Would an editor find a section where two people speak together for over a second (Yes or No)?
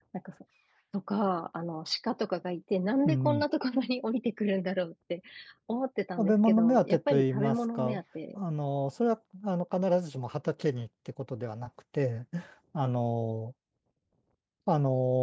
Yes